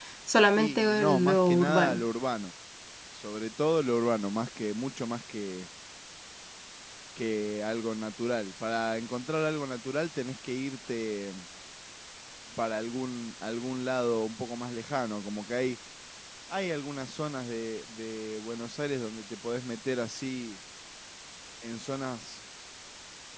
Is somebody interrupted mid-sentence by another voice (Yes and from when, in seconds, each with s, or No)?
Yes, from 0.6 s